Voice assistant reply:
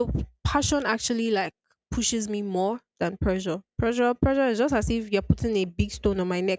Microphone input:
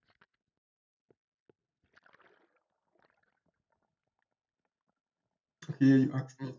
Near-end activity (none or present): present